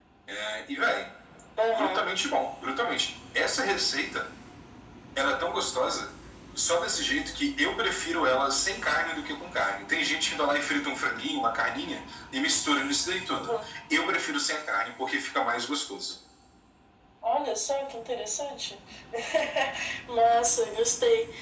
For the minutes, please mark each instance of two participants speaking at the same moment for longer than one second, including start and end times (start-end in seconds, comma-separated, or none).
none